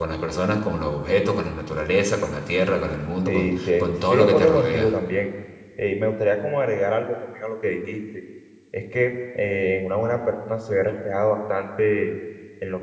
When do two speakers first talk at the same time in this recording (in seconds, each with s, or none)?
3.3 s